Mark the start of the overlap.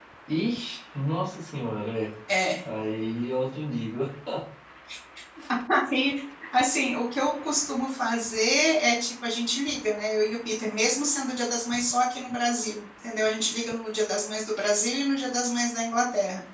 none

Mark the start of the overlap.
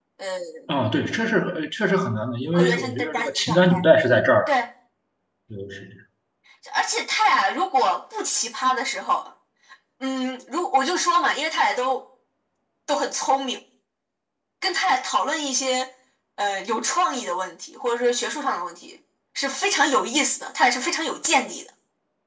2.5 s

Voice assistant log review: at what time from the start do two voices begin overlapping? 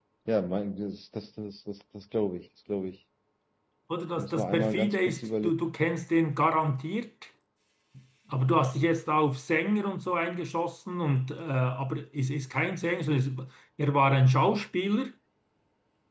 4.2 s

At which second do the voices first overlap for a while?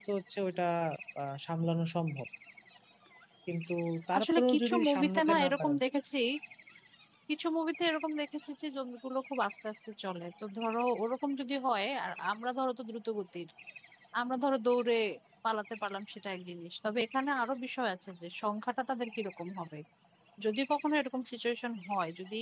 4.2 s

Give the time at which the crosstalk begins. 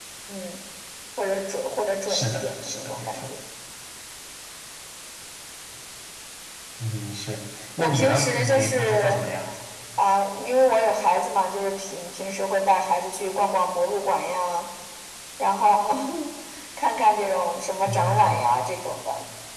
2.1 s

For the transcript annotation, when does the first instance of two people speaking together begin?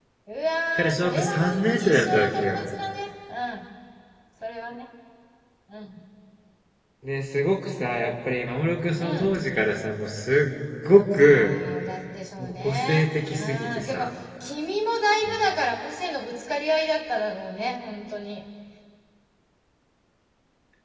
0.8 s

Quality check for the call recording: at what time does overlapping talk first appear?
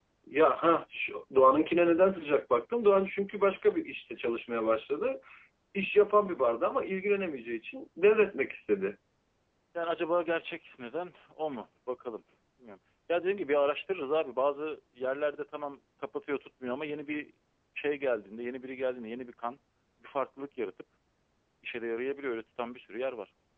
none

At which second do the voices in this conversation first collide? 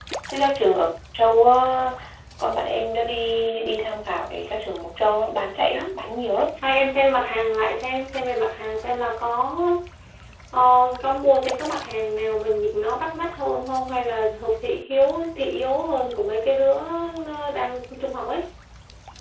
none

